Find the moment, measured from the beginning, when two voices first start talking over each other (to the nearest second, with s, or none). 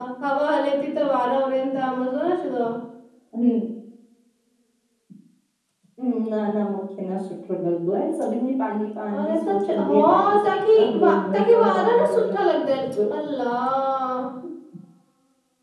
9 s